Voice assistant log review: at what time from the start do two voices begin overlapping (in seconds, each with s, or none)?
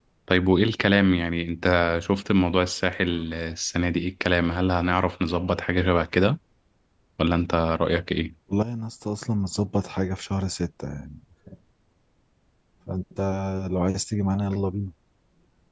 none